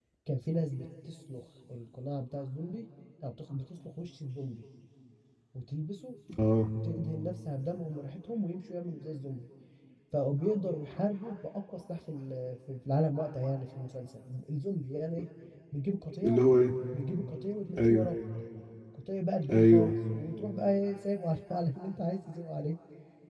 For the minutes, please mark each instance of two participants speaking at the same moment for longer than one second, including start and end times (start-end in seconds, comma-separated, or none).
none